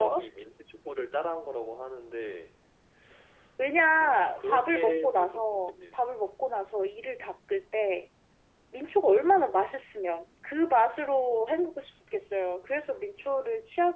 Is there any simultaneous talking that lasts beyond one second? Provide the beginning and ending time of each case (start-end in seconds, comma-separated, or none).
3.8-6.0